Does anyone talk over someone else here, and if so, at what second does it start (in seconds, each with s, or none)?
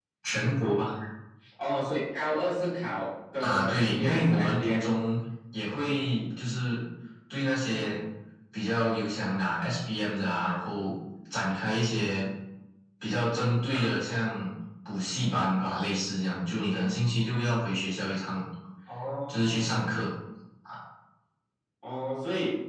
3.4 s